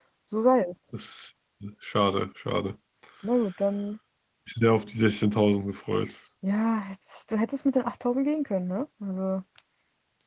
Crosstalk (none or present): none